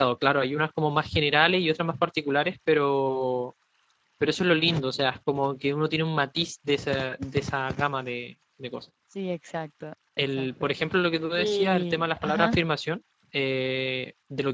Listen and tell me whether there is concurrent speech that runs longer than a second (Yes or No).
Yes